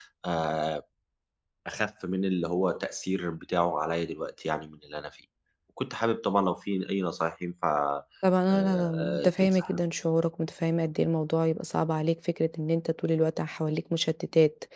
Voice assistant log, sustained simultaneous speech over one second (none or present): present